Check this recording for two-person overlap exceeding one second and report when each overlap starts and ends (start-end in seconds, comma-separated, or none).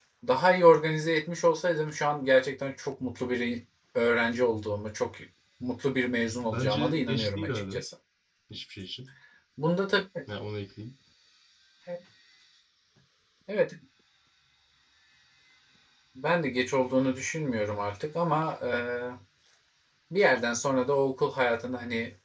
6.4-7.8